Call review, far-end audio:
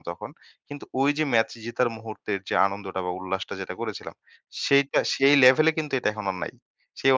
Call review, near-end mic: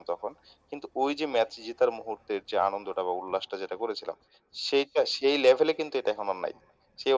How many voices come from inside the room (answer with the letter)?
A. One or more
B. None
B